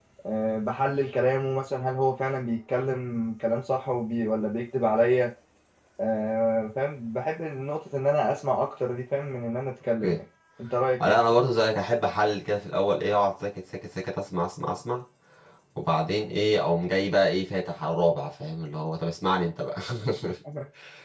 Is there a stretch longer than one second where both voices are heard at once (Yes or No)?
No